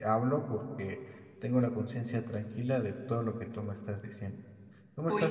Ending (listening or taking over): taking over